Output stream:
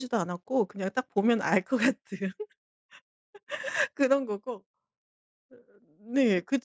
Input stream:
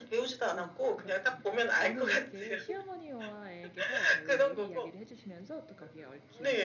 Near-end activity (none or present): present